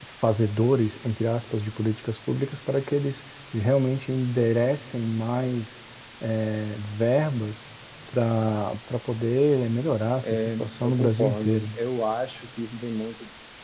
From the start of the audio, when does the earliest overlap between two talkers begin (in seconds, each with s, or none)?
10.2 s